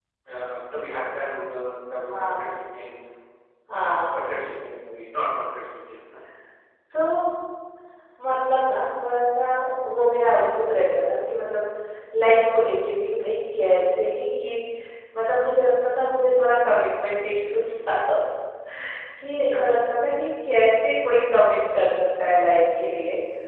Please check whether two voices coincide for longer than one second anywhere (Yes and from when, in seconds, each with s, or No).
No